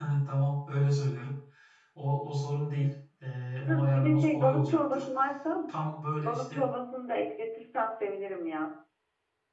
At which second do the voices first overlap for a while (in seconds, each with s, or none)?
3.7 s